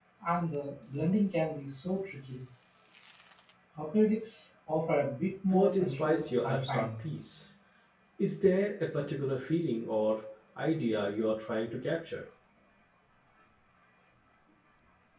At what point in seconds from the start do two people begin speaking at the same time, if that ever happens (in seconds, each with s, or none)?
5.5 s